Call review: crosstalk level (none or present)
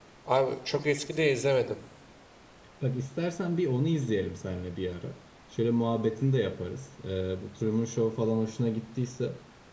none